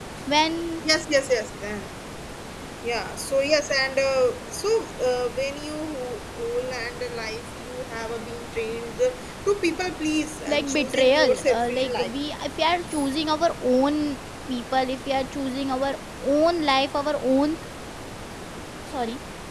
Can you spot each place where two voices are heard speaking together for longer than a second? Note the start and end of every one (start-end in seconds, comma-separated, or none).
10.5-12.1